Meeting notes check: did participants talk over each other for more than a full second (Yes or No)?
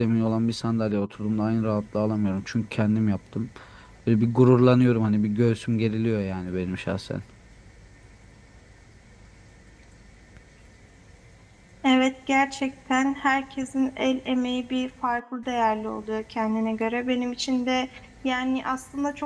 No